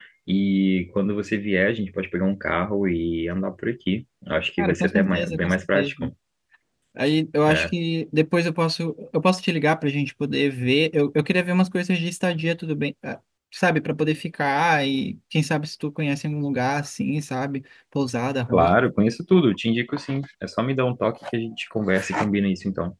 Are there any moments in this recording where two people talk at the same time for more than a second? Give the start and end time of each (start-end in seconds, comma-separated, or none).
4.6-5.9